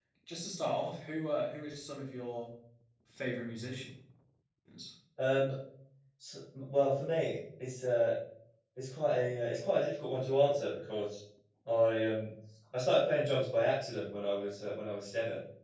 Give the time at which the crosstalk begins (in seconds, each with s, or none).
none